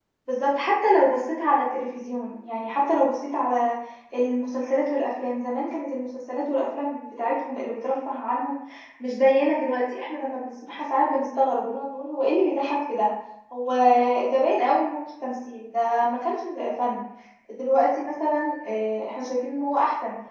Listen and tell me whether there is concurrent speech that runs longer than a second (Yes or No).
No